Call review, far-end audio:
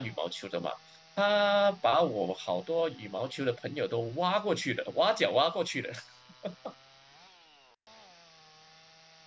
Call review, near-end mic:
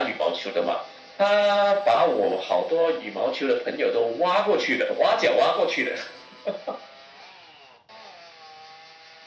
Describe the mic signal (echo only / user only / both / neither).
echo only